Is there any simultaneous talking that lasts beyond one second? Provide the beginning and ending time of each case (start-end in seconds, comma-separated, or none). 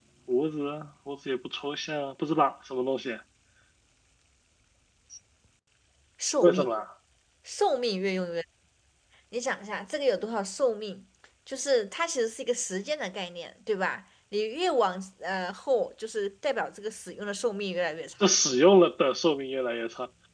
none